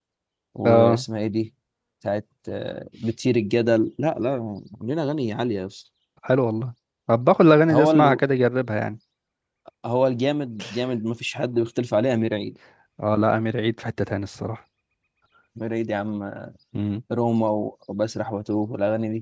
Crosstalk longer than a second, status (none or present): none